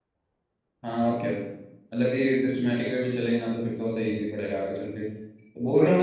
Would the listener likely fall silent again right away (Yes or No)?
Yes